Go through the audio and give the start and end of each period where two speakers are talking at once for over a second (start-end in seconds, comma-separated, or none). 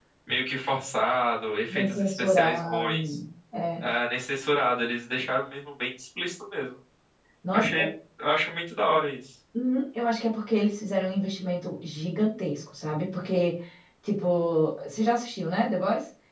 1.7-3.2